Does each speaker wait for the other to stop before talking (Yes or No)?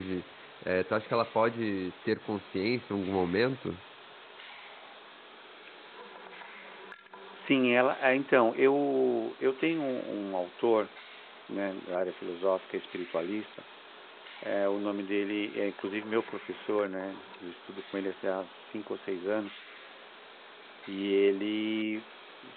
Yes